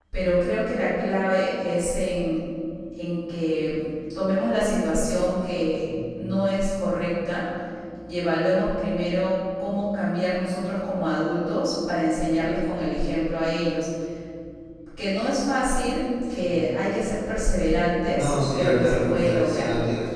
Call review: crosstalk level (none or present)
present